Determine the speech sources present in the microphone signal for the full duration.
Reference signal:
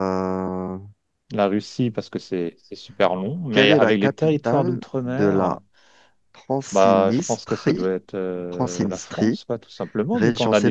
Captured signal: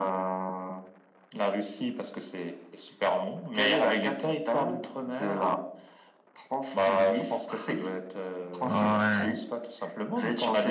both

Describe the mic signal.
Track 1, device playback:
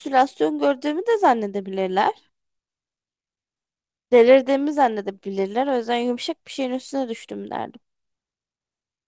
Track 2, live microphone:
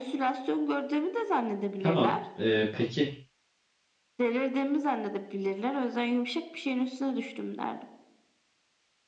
both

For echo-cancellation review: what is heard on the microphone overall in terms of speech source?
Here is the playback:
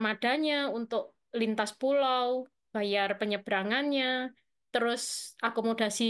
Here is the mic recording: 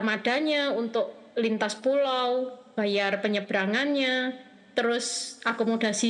echo only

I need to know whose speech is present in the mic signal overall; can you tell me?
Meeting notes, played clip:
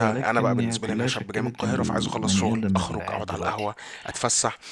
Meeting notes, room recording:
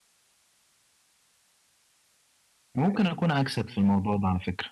user only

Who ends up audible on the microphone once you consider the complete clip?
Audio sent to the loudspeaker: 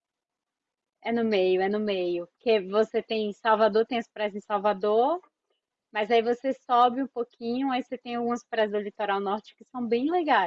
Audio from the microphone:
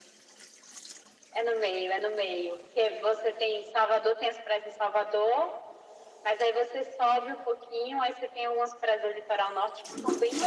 echo only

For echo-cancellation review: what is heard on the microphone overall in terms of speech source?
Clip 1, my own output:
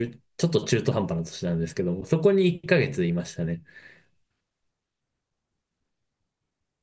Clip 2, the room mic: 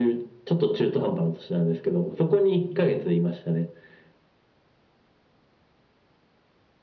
echo only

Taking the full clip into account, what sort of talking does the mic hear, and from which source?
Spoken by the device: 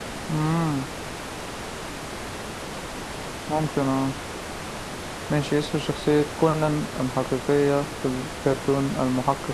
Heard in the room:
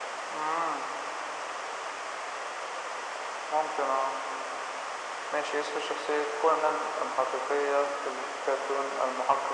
echo only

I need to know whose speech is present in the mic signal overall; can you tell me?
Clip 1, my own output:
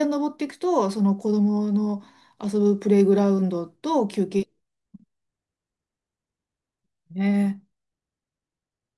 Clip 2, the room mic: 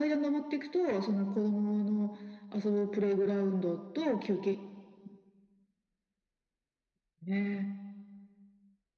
echo only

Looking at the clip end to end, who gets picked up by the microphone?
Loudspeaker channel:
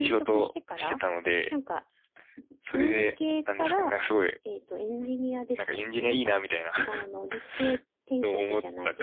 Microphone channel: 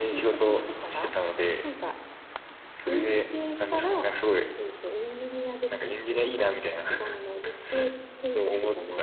echo only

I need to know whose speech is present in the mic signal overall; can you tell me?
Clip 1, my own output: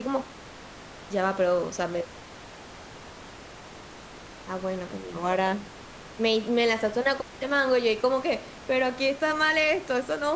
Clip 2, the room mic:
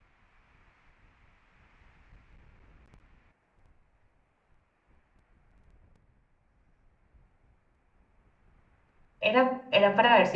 user only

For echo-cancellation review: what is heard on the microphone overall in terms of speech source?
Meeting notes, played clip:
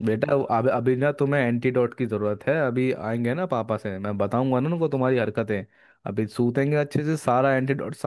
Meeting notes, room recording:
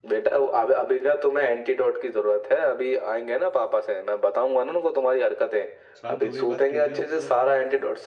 both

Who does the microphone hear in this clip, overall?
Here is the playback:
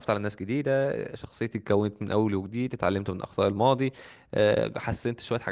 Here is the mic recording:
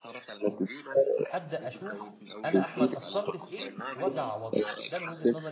both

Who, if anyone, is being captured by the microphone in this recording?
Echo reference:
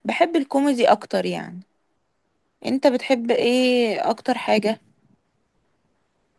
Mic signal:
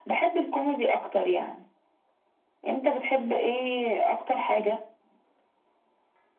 echo only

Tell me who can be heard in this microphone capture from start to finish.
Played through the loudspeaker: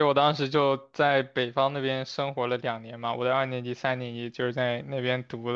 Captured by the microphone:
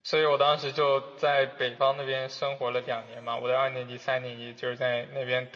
echo only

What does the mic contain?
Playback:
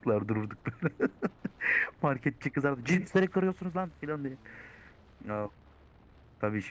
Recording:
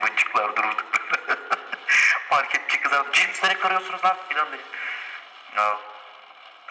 echo only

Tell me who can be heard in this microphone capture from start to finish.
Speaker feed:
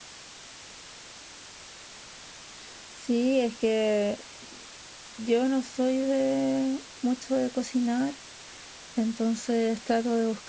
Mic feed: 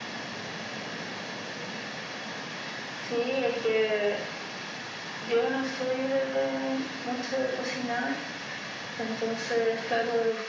echo only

